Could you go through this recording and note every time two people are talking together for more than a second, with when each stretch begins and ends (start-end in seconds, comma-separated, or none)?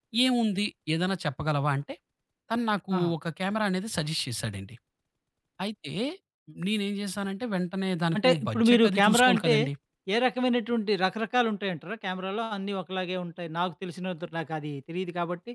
8.2-9.6